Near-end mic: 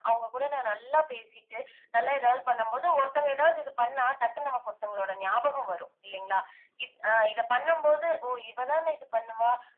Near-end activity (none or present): none